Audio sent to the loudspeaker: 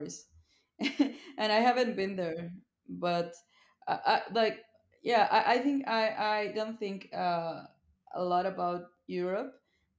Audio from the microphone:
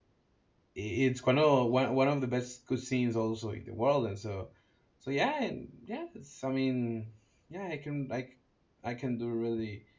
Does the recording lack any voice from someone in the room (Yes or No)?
No